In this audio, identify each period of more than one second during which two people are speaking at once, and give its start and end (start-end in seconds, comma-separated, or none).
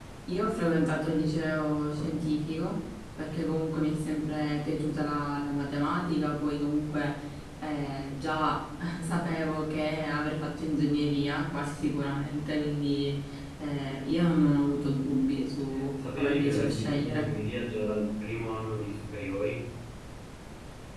16.0-17.3